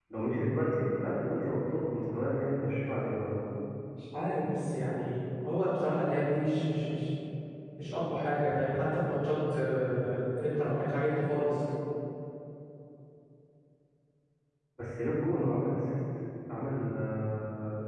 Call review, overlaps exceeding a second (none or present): none